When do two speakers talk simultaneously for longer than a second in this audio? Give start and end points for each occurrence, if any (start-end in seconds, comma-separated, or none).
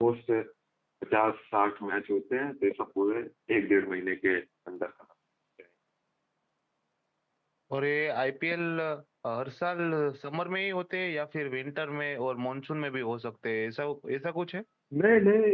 none